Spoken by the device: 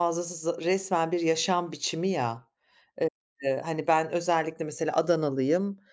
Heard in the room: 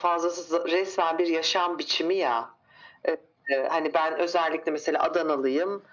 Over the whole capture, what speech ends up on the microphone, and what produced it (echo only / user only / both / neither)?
echo only